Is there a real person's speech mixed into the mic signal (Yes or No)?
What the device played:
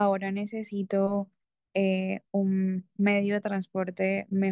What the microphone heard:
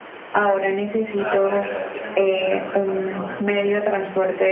Yes